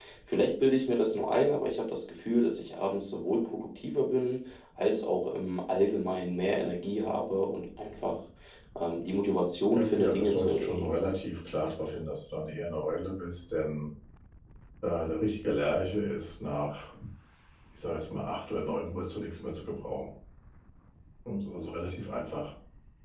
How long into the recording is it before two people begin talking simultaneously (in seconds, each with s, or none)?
9.7 s